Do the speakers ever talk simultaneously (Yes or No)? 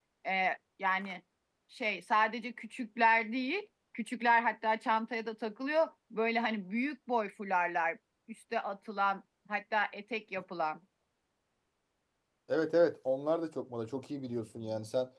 No